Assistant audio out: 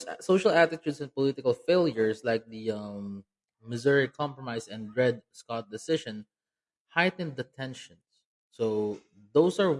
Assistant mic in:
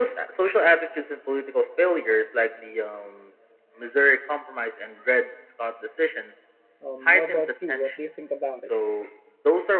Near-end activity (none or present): present